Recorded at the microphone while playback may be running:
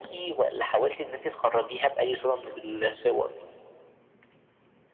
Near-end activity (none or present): none